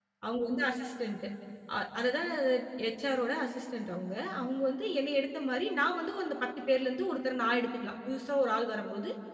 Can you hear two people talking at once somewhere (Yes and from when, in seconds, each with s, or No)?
No